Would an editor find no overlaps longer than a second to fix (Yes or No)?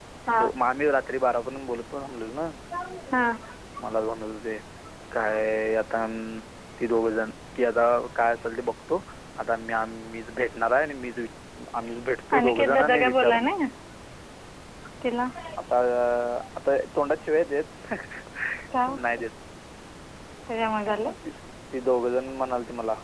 No